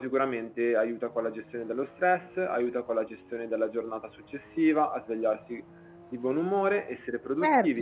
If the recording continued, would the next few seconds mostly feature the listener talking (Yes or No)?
Yes